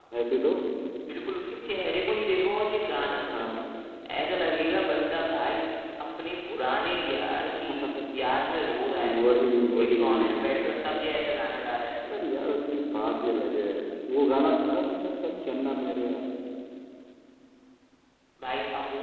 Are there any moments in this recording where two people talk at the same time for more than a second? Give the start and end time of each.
none

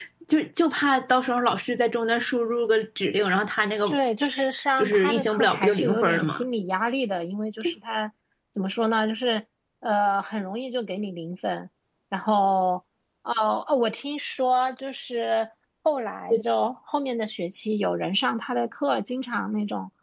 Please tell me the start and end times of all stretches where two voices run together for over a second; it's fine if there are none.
4.8-6.4

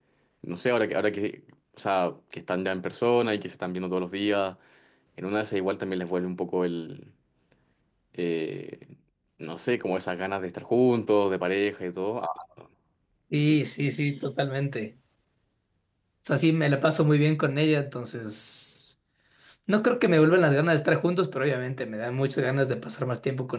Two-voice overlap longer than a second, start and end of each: none

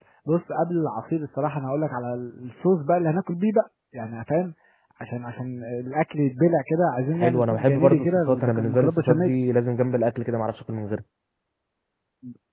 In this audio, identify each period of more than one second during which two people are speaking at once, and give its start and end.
7.1-9.3

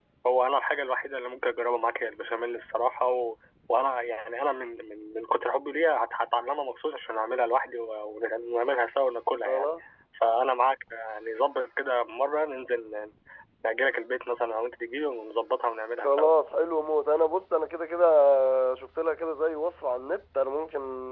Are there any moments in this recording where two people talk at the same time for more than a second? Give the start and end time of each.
none

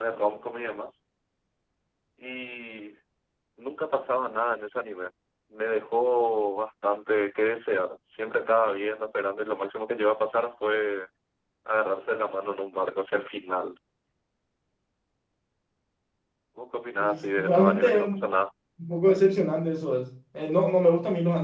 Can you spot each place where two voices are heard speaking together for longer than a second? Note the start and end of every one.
17.0-18.2

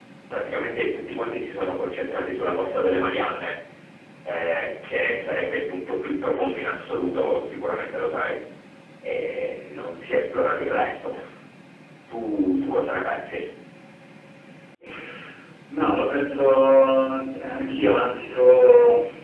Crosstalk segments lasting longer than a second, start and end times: none

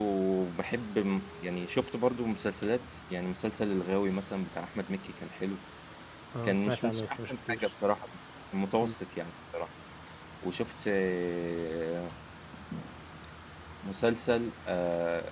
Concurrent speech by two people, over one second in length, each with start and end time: 6.4-7.7

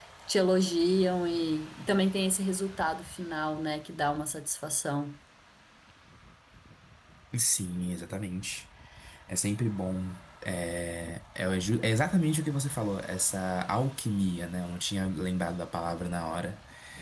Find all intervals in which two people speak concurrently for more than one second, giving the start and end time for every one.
none

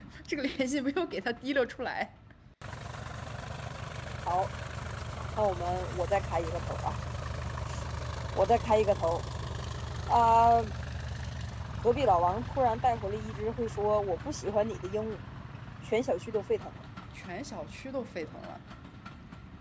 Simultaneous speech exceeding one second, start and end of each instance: none

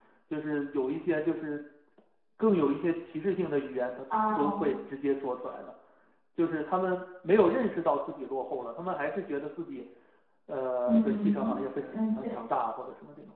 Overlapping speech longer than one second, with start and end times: 10.9-12.4

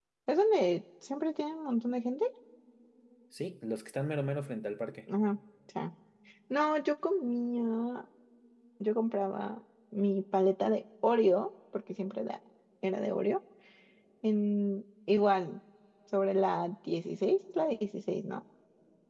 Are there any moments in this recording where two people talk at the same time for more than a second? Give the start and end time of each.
none

